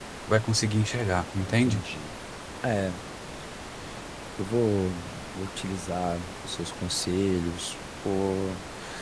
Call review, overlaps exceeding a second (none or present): none